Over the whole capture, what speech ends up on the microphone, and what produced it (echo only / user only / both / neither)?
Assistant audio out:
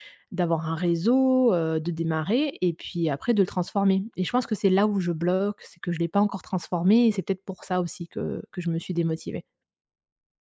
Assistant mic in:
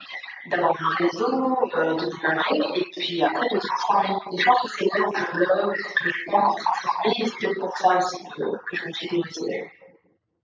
echo only